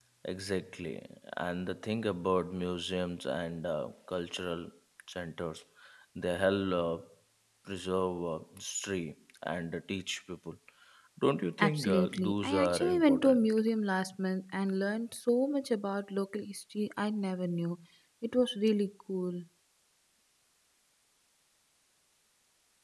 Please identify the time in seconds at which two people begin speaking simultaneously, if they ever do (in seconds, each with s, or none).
11.6 s